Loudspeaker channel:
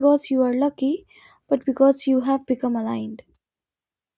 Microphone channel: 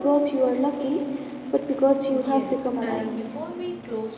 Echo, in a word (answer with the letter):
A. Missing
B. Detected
B